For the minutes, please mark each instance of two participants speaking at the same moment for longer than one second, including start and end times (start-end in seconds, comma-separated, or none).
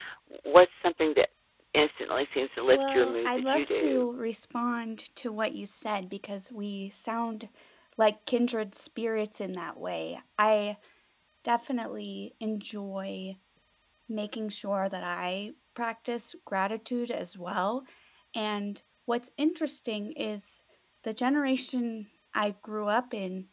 2.7-4.1